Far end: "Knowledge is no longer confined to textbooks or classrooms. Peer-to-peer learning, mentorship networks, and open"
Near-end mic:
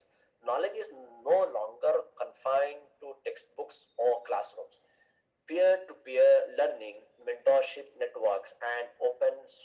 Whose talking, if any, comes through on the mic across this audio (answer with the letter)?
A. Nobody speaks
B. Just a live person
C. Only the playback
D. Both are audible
C